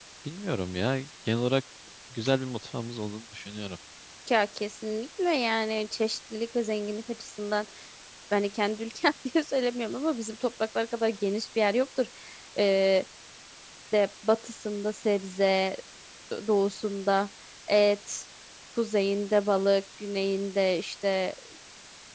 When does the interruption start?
none

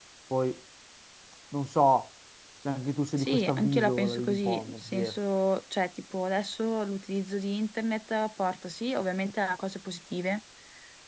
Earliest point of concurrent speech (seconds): 3 s

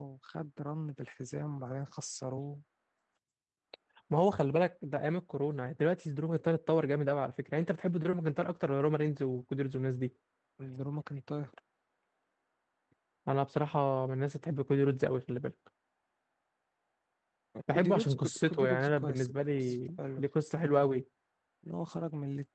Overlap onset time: 18 s

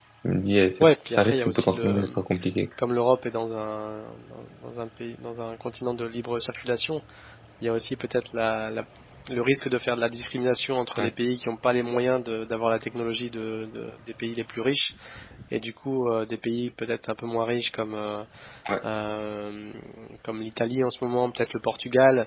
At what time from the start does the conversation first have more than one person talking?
1 s

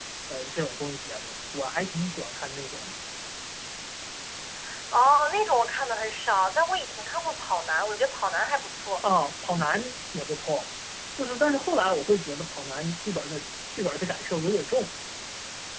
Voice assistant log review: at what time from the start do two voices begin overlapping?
none

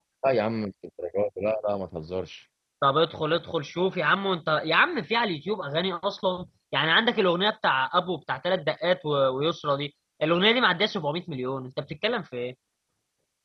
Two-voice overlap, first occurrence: none

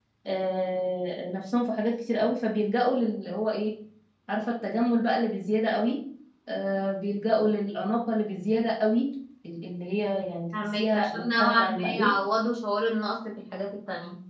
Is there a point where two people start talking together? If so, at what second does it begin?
11 s

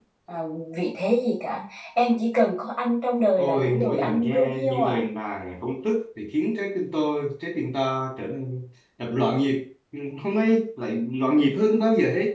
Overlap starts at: 3 s

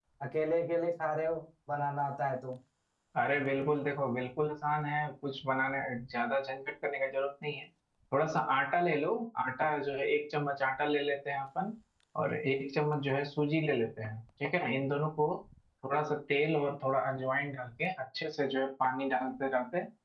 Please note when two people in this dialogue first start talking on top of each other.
none

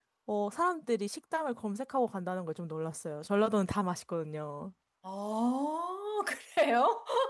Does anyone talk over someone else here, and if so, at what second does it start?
none

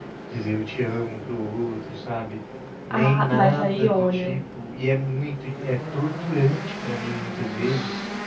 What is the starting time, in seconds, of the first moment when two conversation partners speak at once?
3 s

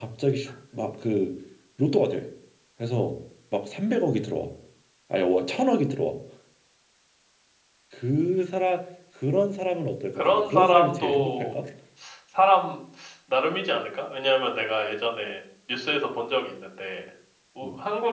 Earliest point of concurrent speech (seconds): 10 s

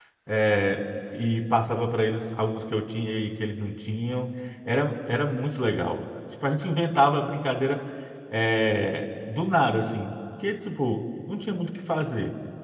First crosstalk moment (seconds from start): none

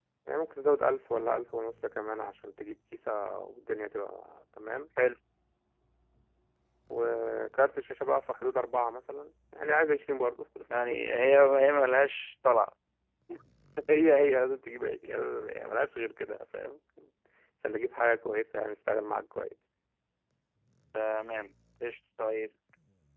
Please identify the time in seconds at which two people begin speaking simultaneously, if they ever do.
none

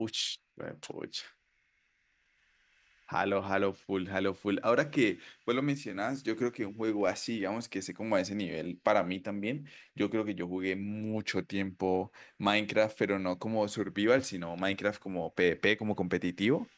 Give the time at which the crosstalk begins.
none

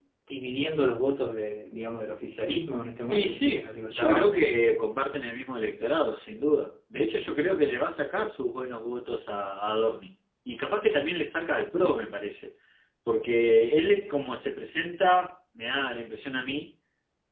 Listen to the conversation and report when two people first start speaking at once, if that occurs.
3 s

